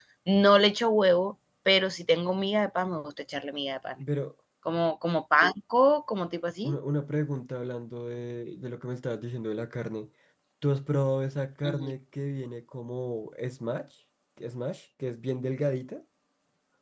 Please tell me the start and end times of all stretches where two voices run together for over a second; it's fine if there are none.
none

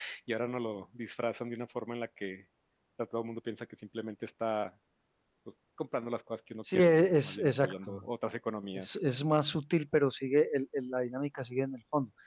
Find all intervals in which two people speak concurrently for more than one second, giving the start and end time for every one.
6.7-7.9

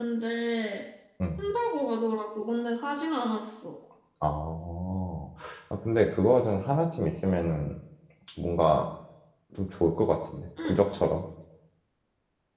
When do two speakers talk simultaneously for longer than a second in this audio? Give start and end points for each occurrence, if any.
none

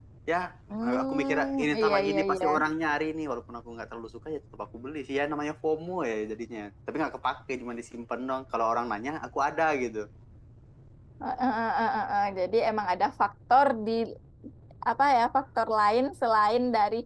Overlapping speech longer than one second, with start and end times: 0.8-2.4

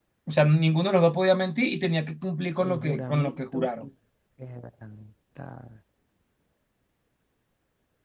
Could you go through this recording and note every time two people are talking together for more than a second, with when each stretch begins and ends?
2.6-3.8

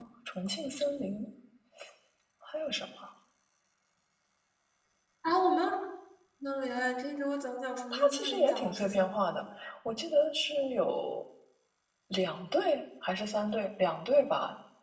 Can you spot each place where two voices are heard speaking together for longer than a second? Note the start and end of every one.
7.9-9.4

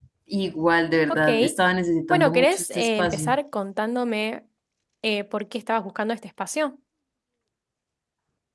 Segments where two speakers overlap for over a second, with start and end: 2.1-3.4

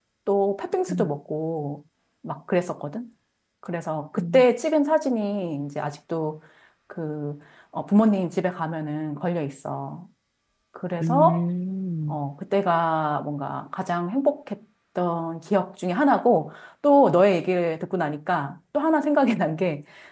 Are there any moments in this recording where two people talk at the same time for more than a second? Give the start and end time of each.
none

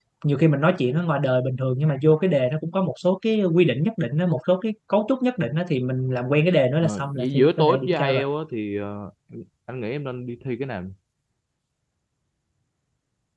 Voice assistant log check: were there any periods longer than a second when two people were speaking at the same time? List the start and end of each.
6.8-8.2

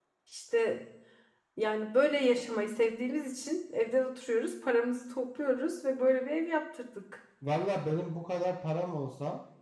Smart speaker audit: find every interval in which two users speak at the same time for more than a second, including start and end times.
none

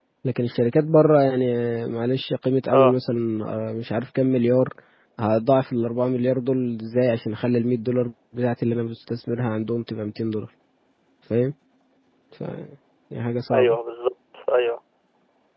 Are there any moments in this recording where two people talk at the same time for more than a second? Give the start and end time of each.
none

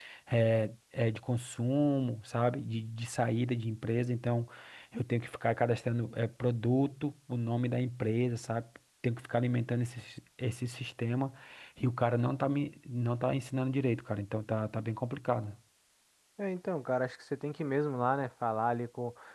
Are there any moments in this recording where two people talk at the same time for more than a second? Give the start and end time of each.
none

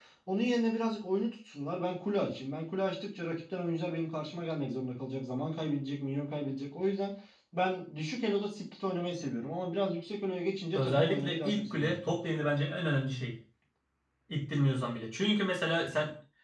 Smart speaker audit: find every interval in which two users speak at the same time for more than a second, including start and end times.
10.8-12.0

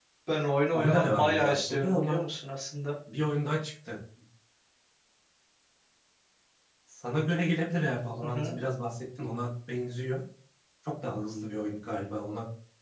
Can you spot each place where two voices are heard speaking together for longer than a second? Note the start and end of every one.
0.7-2.2

